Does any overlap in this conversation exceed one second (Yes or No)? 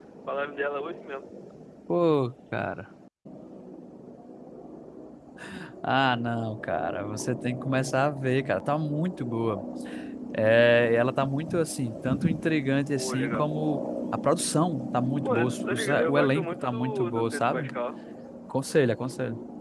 Yes